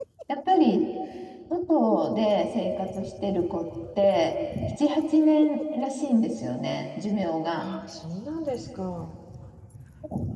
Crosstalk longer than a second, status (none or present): none